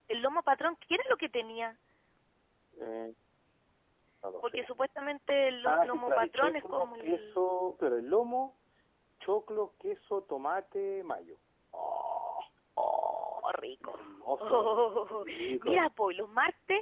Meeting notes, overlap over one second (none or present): present